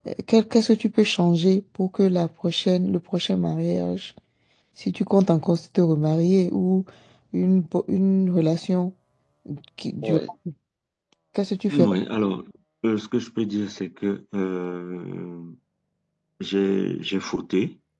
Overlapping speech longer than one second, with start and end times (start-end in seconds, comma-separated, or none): none